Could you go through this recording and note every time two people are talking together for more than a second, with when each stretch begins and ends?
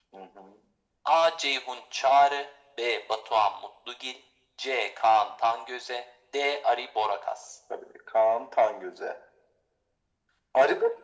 none

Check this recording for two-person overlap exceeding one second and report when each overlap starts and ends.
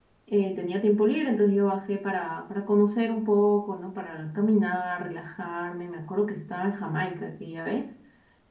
none

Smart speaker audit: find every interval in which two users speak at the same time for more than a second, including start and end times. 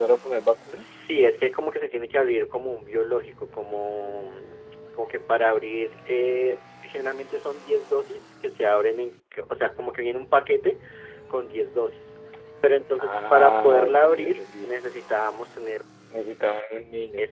13.1-14.7

